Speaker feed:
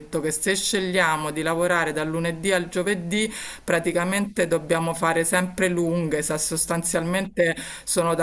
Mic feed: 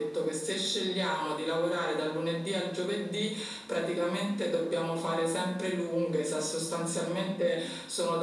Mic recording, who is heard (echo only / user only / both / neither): echo only